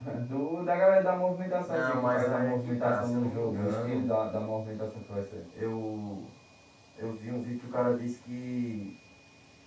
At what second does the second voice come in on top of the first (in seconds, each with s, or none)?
1.6 s